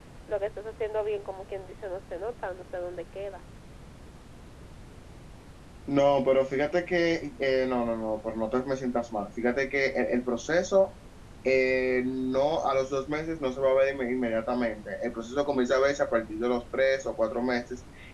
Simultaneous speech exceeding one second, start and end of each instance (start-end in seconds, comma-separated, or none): none